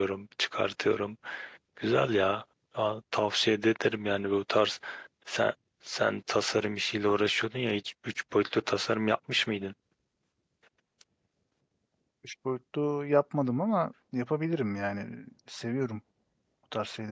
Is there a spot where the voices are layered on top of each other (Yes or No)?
No